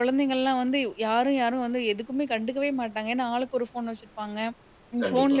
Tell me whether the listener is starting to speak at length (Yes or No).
No